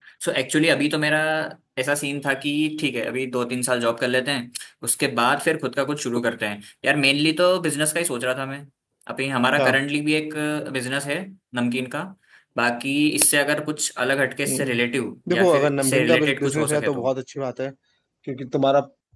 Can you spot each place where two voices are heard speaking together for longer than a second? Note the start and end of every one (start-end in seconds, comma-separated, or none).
15.3-17.1